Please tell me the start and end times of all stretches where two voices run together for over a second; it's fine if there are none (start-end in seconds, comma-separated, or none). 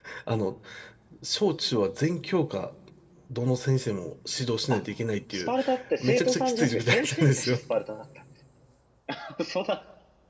6.0-7.6